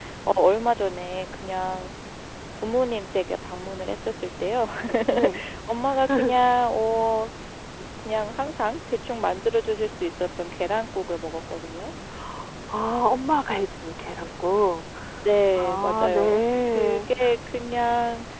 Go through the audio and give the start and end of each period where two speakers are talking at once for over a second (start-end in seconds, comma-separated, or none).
15.6-17.1